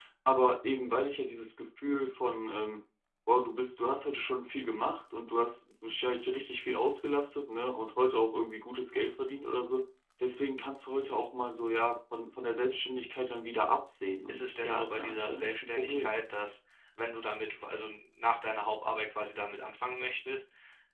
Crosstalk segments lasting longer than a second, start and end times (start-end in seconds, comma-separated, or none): 14.3-16.2